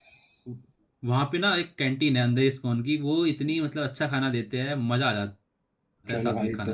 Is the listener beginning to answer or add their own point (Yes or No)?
Yes